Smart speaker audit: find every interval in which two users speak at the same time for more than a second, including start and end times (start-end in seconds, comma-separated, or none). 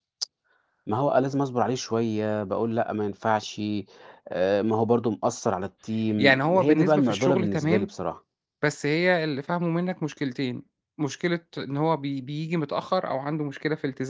6.2-7.9